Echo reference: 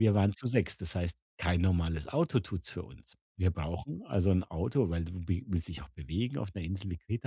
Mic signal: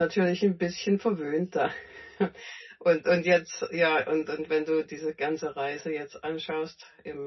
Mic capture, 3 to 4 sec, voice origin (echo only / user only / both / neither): user only